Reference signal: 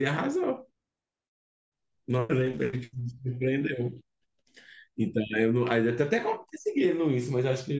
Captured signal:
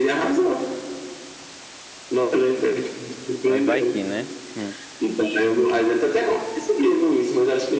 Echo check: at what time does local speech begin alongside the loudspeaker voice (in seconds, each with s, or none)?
3.4 s